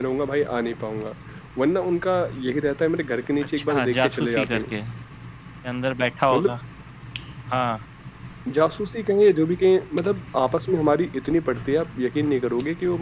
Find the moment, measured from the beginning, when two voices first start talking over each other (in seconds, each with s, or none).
3.4 s